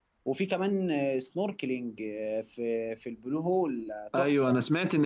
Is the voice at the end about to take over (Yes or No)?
Yes